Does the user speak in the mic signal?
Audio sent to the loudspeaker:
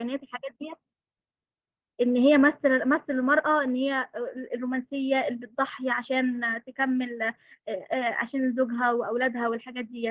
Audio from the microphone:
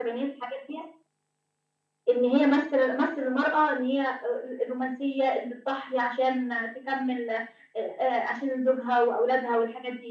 No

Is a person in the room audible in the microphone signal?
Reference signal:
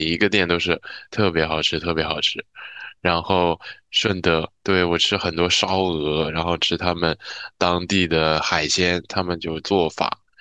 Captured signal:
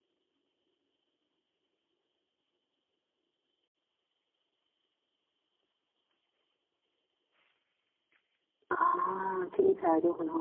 Yes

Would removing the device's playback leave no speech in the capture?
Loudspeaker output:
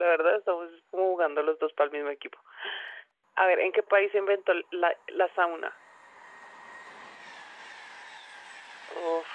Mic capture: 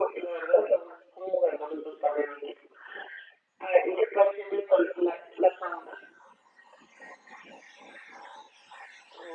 Yes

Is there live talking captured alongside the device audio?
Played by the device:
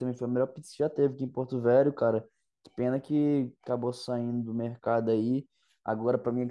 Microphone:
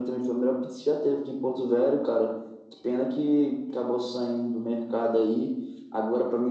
No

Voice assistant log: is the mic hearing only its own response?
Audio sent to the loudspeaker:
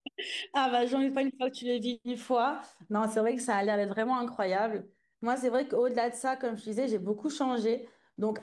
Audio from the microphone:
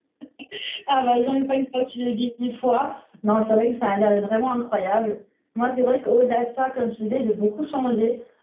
Yes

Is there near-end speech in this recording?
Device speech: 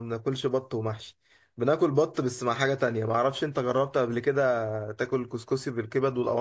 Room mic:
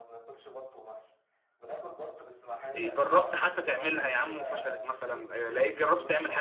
Yes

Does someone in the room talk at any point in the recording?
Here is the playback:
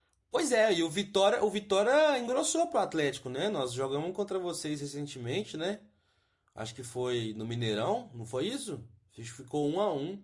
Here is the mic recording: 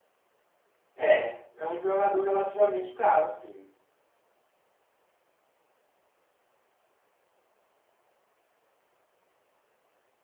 Yes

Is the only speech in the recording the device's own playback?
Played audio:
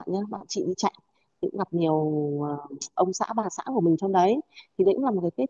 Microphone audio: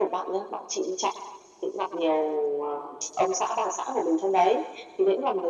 Yes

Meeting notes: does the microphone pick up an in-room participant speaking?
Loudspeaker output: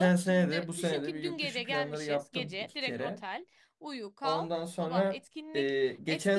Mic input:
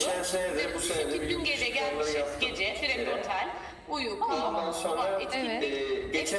Yes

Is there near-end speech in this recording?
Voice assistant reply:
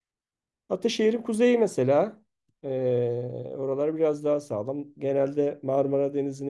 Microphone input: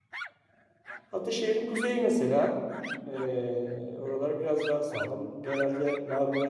No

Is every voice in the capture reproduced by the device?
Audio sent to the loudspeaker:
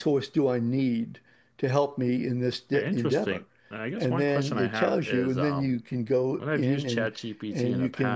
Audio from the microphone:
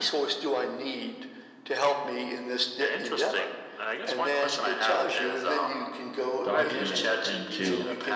No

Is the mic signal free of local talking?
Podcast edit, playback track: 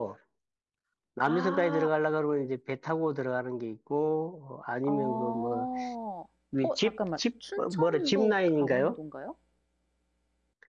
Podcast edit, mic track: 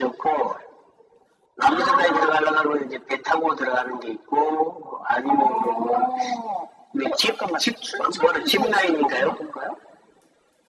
Yes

